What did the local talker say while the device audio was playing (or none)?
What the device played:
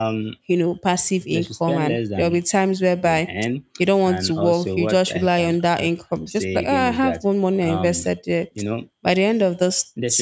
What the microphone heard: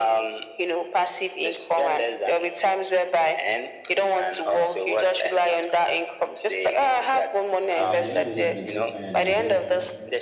and at the end of the day, they just find out that they don't,